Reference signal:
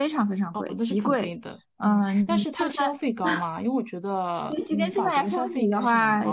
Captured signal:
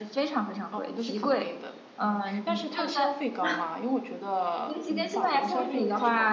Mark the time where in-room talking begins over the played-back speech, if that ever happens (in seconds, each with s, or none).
5.2 s